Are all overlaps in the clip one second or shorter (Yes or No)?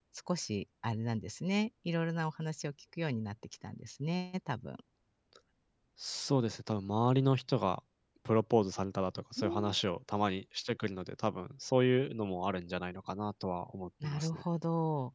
Yes